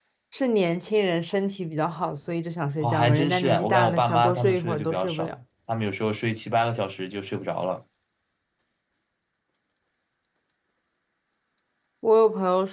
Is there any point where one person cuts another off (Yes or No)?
Yes